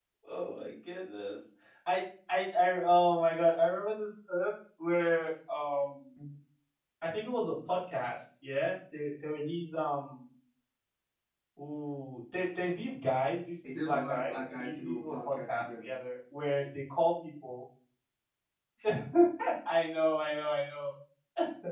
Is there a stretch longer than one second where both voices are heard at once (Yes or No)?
Yes